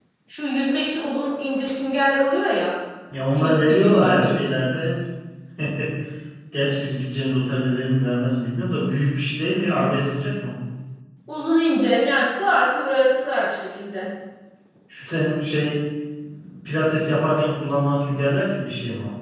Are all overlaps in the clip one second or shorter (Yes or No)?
No